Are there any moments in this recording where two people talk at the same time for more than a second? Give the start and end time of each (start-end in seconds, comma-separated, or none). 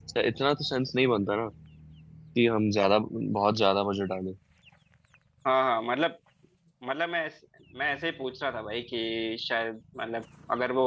none